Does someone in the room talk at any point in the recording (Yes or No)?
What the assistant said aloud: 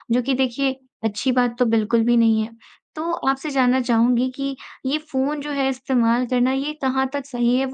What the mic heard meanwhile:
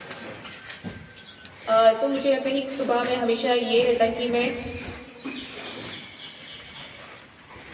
Yes